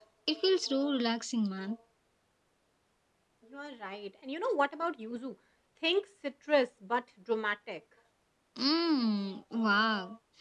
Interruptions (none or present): none